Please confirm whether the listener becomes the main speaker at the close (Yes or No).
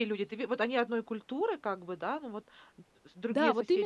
Yes